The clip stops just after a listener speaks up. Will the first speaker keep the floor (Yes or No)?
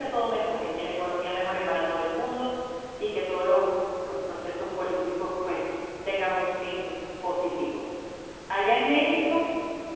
Yes